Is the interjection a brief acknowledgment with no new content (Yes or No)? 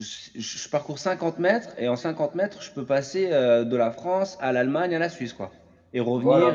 No